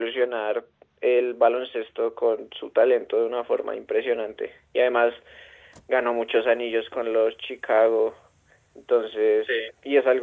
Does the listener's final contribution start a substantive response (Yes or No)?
No